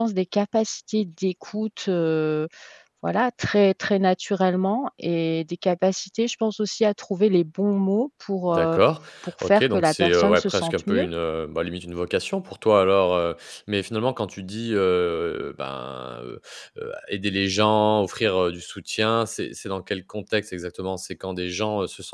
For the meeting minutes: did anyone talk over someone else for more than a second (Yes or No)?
Yes